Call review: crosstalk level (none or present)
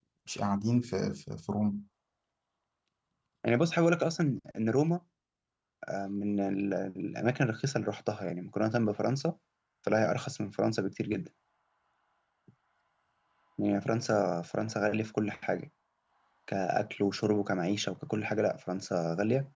none